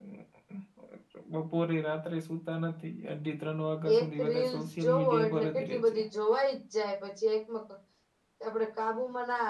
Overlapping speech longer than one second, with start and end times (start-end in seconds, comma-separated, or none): 4.0-6.0